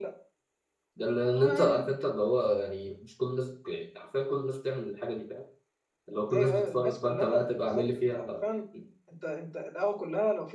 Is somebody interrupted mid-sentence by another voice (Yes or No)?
Yes